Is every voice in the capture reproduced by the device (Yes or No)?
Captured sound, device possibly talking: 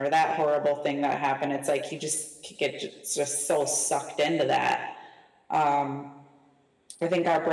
No